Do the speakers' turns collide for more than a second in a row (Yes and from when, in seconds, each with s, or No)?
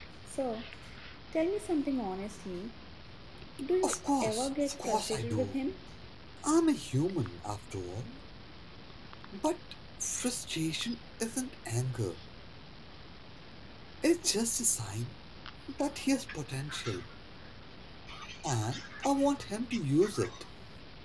Yes, from 3.8 s